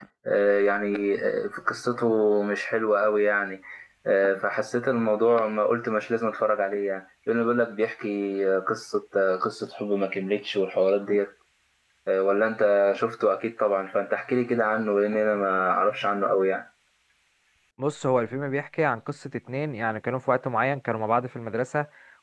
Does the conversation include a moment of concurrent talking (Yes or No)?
No